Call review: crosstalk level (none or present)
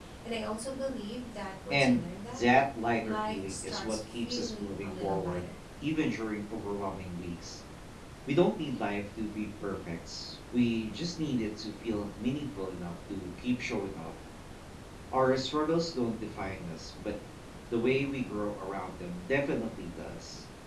present